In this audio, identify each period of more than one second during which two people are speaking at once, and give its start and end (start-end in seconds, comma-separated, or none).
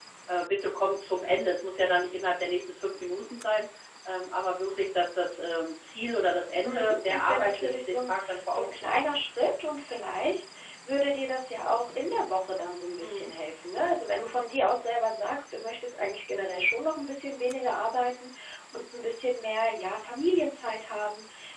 6.6-9.0